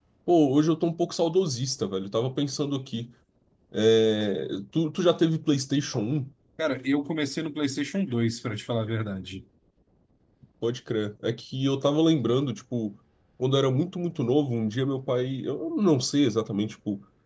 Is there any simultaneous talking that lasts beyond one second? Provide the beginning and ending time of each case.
none

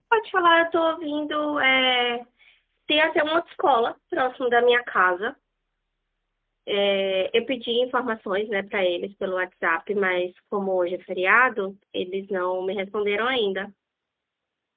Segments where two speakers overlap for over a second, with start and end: none

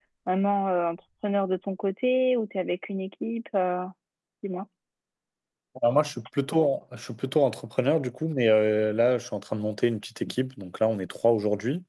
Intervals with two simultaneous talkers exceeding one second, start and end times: none

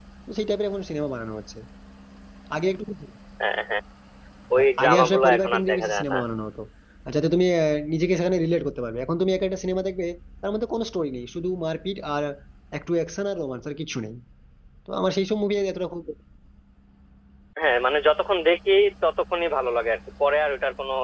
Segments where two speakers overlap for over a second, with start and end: 4.8-6.2

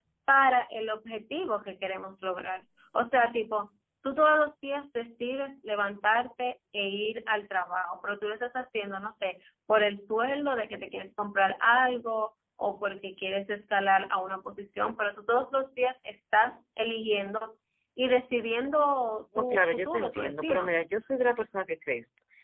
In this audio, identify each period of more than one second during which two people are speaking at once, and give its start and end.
19.4-20.8

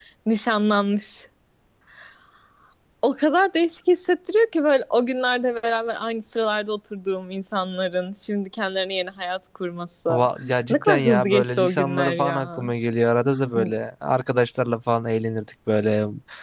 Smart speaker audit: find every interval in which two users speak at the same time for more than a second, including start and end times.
10.7-12.7

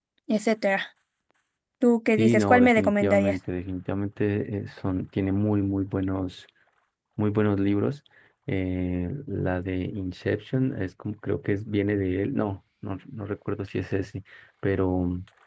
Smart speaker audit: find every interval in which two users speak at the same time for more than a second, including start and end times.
2.2-3.4

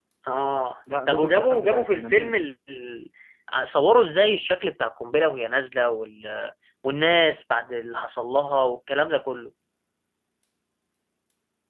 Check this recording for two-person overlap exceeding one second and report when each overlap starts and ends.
1.1-2.3

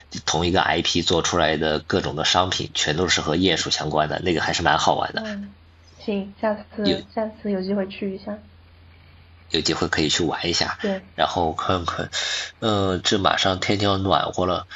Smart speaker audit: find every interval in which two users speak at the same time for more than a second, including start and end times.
none

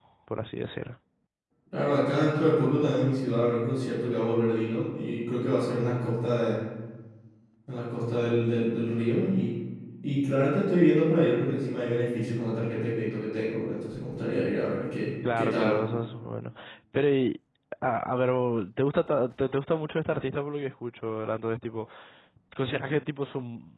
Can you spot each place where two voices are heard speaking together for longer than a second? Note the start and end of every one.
none

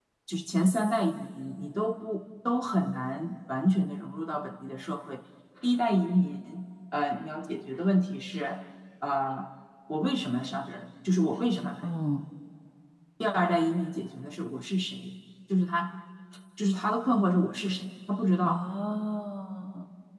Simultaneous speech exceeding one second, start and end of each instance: none

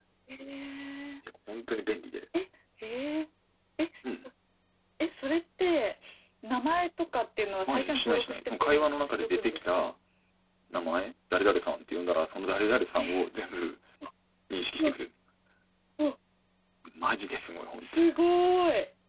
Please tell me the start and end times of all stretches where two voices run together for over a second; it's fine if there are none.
7.7-9.9

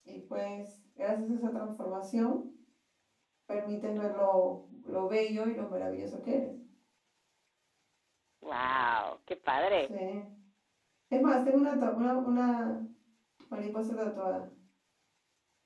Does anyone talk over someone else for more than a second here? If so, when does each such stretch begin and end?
none

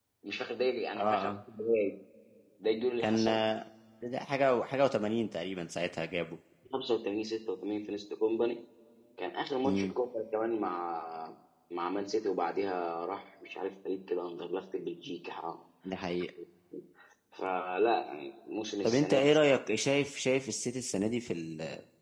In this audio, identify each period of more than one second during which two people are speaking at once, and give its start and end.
none

